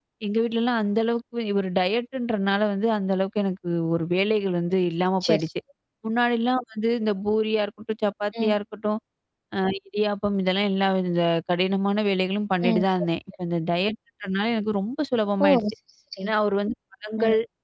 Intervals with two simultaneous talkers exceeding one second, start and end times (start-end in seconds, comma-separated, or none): none